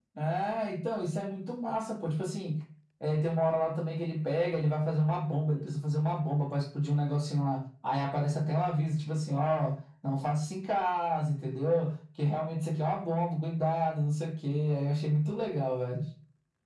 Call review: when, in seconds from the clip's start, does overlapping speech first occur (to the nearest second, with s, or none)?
none